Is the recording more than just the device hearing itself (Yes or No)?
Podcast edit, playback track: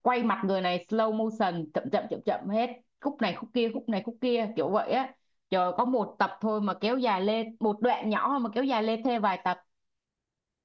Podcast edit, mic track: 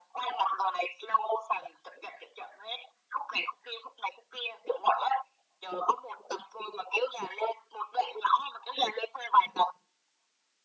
No